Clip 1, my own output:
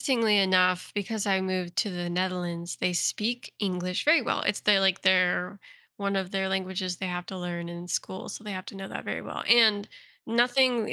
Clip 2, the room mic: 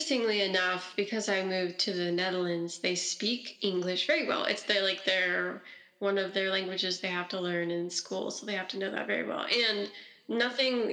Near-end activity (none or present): none